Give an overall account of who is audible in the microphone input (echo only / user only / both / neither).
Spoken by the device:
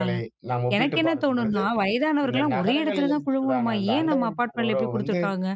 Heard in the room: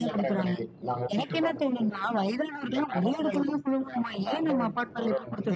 echo only